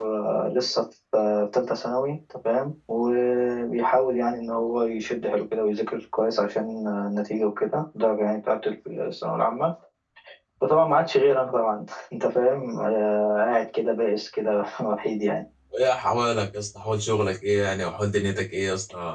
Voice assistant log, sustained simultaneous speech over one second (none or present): none